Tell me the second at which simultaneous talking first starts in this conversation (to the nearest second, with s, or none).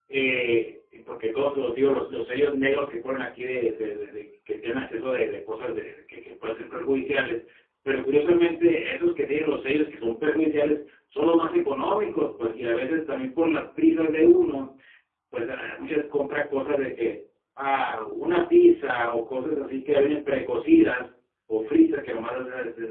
none